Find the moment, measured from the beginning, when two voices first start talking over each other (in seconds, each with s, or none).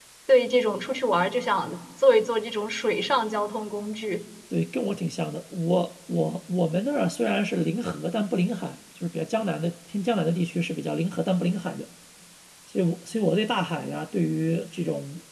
none